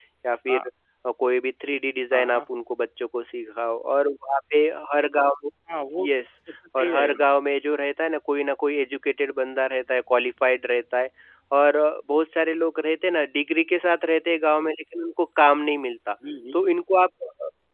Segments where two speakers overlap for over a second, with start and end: none

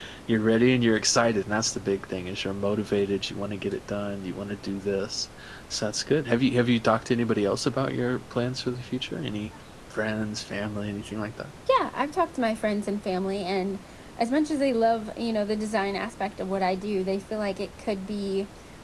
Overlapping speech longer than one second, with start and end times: none

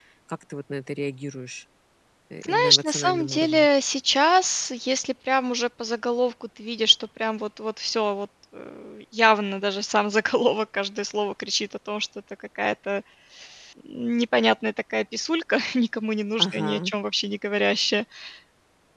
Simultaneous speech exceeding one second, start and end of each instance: 2.4-3.7

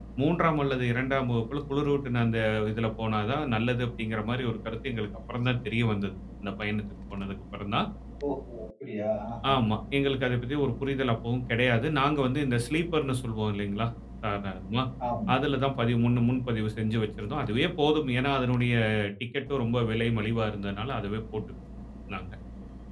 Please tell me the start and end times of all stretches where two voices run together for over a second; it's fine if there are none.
none

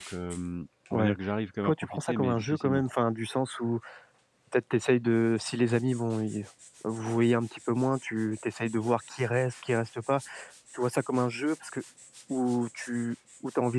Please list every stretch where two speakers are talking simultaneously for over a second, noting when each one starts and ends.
1.6-2.8

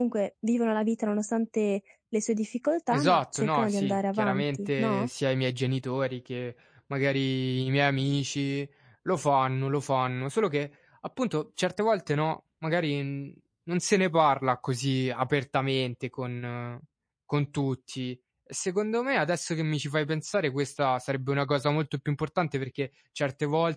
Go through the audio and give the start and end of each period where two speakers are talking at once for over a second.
2.9-5.1

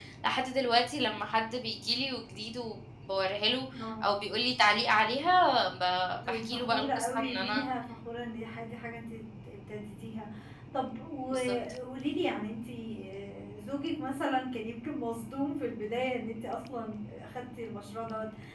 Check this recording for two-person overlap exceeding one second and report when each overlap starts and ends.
6.3-7.6

